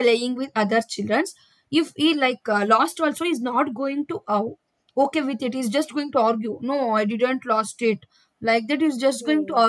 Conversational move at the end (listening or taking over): listening